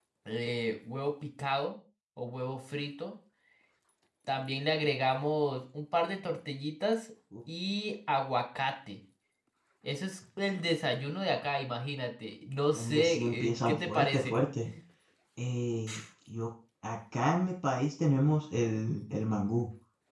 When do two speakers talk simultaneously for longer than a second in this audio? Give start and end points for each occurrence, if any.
12.8-14.3

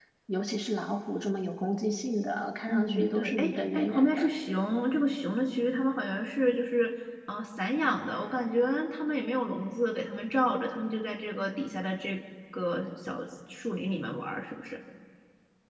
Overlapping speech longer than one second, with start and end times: 2.7-4.3

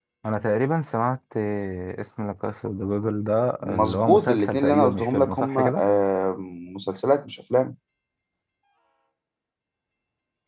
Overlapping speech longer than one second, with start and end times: 3.6-5.8

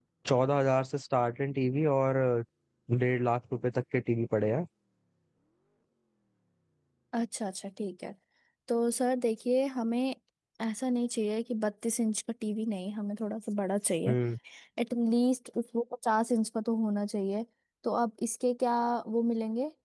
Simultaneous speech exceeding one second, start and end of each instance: none

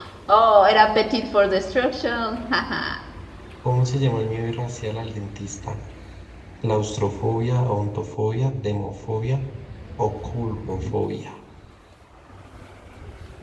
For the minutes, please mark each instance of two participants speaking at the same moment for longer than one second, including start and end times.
none

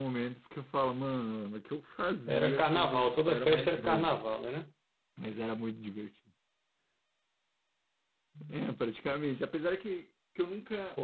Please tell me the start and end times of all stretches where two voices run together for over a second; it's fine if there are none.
2.3-4.2

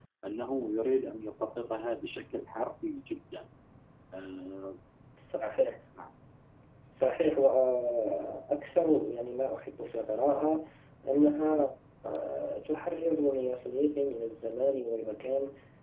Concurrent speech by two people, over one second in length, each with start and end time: none

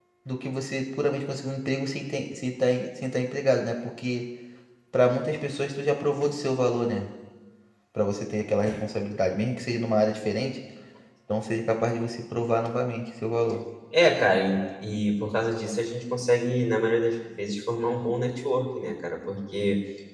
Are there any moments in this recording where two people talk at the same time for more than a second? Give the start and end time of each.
none

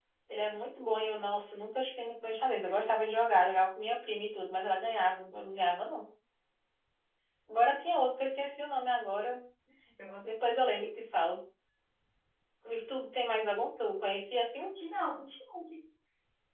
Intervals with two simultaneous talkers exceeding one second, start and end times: none

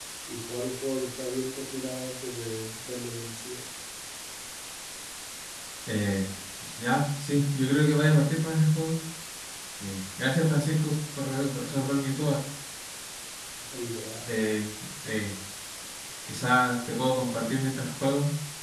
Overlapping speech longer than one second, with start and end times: none

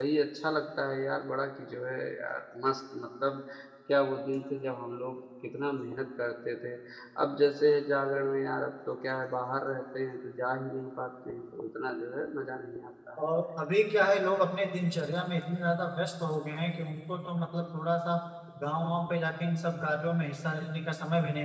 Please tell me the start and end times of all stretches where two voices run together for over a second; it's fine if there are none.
none

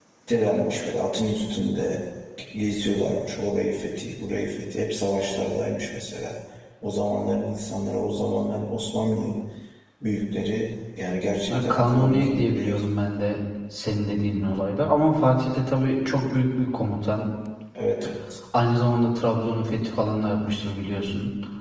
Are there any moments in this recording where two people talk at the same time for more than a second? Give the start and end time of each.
11.5-12.8

